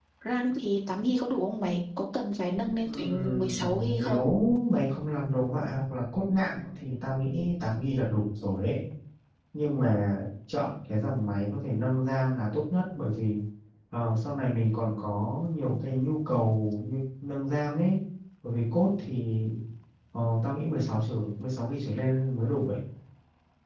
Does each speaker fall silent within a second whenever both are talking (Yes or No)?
No